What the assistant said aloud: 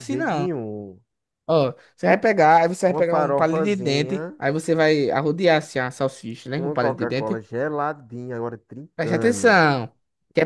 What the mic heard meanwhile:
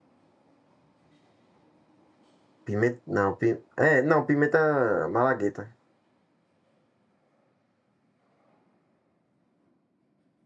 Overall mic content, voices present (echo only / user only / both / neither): user only